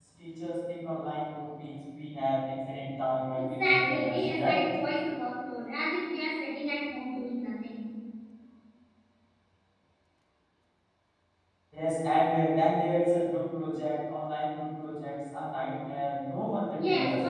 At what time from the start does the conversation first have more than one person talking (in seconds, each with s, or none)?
3.4 s